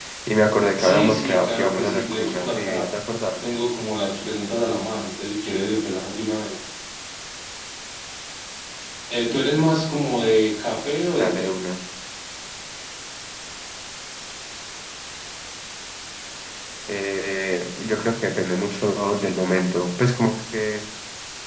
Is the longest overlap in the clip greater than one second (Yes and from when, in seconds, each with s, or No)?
Yes, from 0.8 s